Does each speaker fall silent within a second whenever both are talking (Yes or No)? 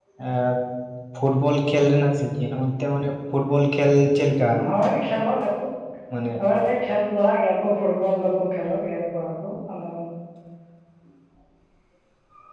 Yes